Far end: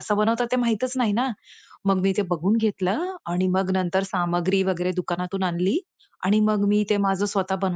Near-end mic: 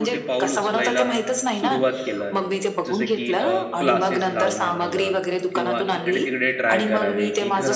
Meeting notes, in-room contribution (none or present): present